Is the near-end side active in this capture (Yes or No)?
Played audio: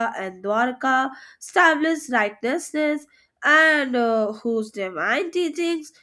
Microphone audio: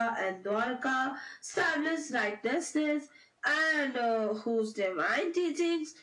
No